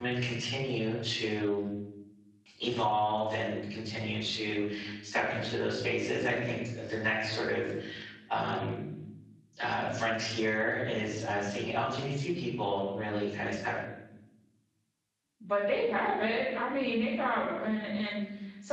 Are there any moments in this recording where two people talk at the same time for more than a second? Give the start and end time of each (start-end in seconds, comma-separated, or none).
none